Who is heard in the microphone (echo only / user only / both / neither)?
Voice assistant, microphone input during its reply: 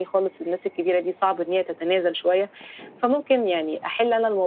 echo only